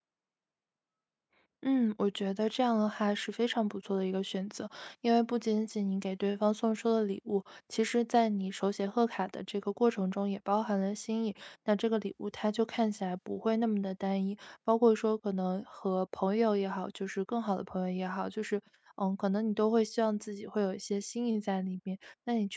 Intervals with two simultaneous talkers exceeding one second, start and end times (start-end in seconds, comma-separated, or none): none